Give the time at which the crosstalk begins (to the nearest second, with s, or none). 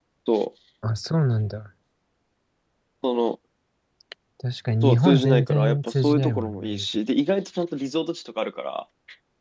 5 s